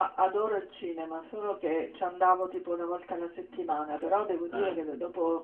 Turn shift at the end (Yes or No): No